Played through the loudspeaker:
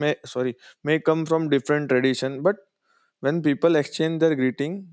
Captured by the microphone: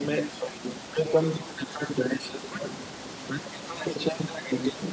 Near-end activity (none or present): none